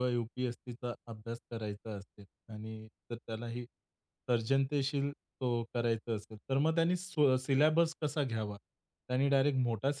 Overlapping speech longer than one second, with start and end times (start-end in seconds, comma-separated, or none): none